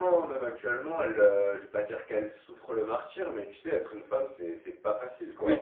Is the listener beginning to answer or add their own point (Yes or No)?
Yes